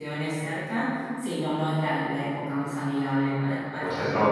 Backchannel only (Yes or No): No